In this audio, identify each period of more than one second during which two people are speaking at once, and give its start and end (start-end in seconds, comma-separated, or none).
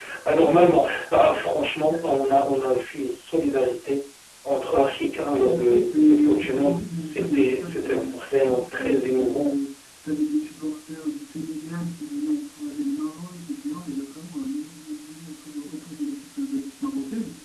5.4-9.5